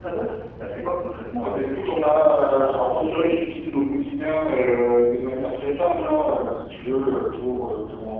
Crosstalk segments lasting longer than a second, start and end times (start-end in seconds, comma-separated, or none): 1.4-3.0